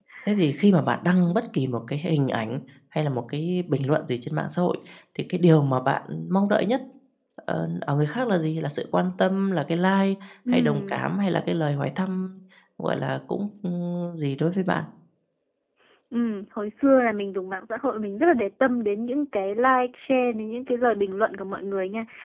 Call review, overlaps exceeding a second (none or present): none